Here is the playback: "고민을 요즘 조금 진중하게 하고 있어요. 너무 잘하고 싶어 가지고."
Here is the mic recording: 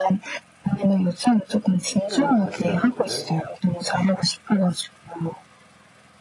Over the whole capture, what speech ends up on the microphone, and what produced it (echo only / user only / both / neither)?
both